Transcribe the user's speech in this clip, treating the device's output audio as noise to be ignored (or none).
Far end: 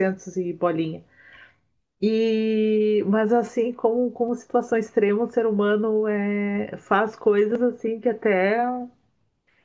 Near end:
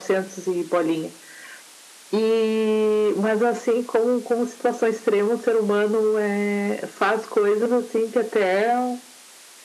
none